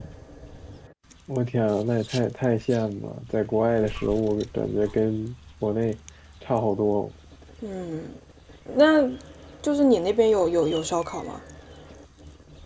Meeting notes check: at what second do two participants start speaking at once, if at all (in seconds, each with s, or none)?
none